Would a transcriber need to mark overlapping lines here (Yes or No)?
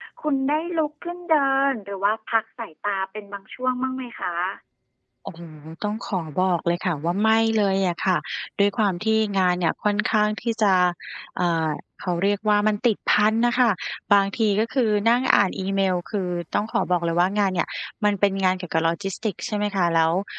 No